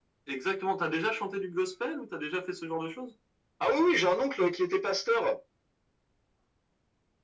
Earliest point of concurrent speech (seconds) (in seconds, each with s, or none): none